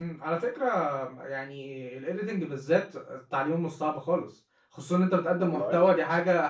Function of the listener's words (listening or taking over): listening